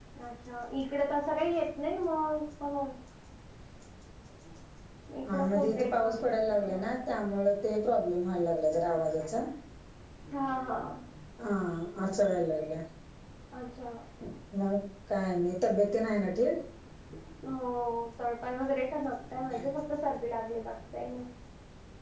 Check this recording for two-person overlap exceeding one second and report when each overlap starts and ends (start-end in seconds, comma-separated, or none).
5.3-7.0